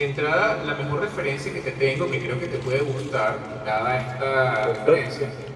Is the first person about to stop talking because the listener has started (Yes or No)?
No